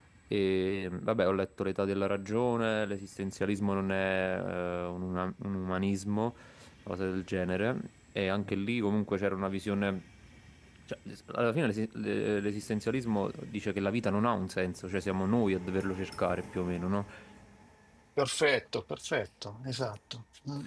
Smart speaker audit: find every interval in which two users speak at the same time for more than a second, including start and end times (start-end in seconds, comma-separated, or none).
none